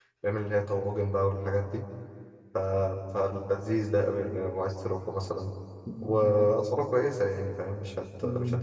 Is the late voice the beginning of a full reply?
Yes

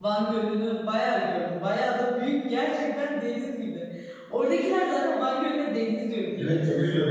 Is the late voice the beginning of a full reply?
Yes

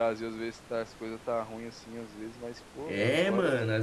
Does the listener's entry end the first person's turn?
Yes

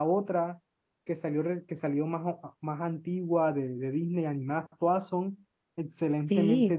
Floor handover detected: Yes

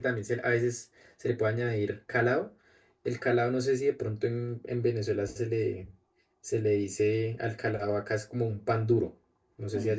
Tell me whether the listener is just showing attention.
Yes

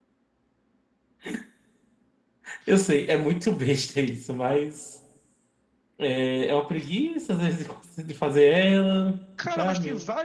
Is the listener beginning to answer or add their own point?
Yes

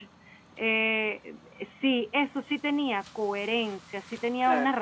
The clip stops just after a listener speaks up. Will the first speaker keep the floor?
Yes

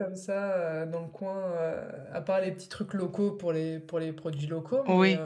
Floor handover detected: Yes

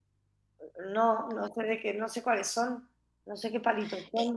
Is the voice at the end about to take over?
Yes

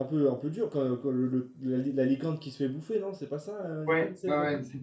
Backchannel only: No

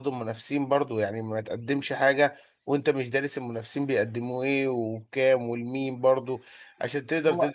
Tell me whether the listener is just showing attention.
Yes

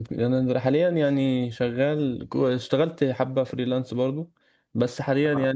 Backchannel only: Yes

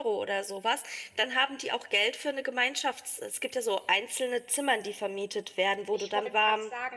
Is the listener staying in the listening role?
No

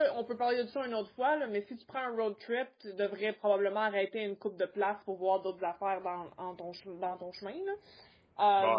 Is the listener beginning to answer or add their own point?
Yes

